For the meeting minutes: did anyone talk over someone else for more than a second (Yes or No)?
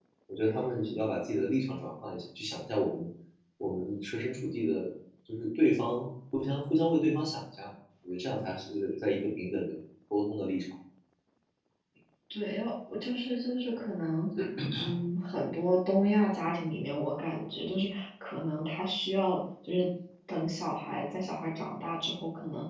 No